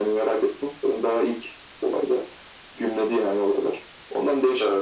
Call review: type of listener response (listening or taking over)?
listening